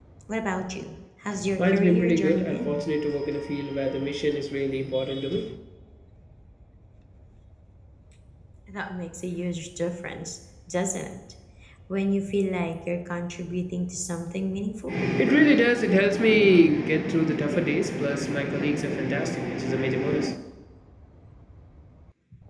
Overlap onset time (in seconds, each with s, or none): 1.6 s